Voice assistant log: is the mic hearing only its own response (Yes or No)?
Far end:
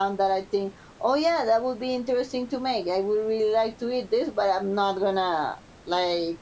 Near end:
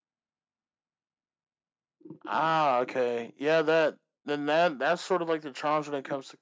No